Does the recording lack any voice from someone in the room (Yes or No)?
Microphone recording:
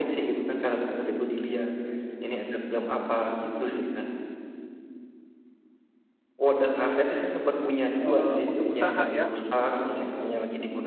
No